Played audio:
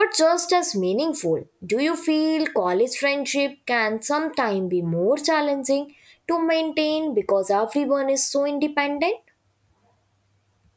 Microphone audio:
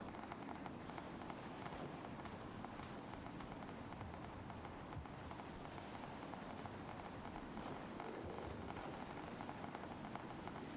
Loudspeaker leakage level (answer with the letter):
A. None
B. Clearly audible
A